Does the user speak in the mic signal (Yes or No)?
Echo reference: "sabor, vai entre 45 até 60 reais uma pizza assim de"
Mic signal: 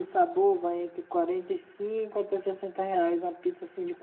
No